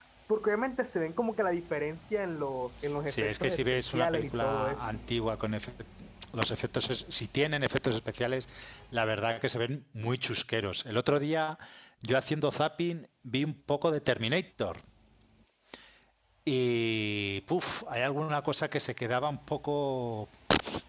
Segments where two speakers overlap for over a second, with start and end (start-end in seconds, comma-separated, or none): 3.1-4.8